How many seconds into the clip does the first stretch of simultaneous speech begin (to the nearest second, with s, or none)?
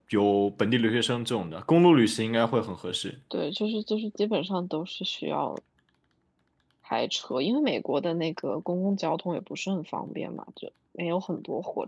none